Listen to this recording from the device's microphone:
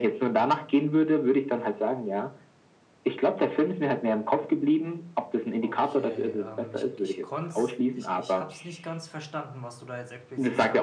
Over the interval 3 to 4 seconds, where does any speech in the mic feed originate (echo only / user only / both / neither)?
echo only